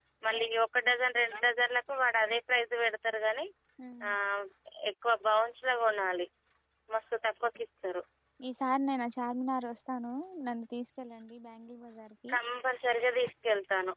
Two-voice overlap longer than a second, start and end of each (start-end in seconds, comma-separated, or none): none